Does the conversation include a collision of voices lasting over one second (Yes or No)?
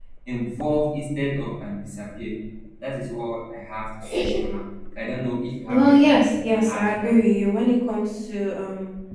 Yes